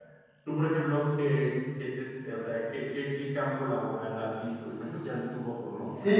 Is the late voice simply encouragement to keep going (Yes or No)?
No